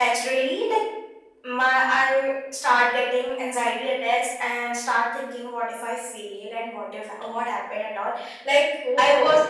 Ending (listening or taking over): listening